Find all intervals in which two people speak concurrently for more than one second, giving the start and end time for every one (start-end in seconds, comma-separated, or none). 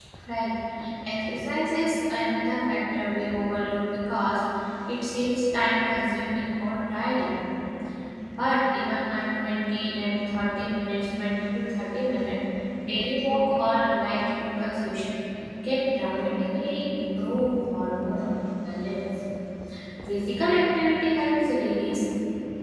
none